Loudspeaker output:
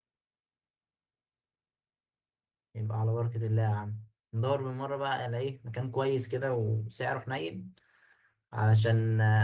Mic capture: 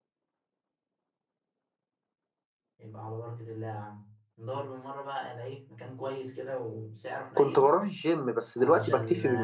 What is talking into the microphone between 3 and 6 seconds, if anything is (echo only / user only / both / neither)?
echo only